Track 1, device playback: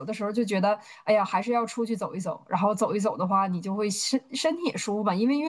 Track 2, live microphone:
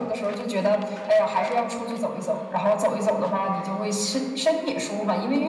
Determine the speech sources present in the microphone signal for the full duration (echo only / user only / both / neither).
echo only